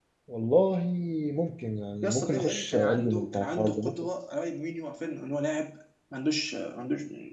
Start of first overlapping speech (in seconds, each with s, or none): 2.0 s